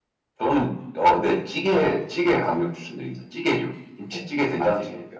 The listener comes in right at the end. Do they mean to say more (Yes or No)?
Yes